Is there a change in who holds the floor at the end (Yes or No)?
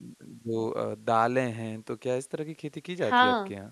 Yes